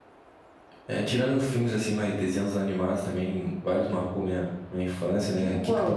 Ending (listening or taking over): taking over